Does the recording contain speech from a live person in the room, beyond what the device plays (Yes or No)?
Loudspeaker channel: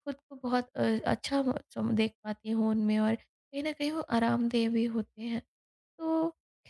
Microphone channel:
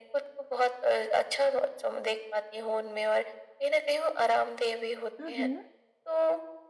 Yes